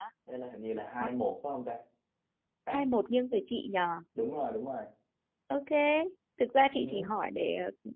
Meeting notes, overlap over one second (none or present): none